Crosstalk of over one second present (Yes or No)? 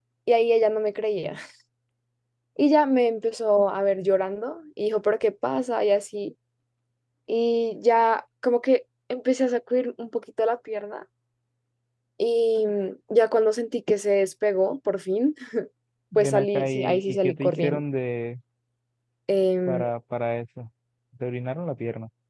Yes